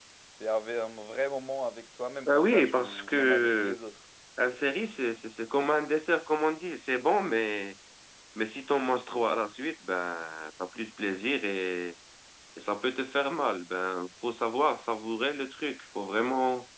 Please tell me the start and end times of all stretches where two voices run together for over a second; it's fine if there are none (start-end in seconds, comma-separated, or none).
2.3-3.7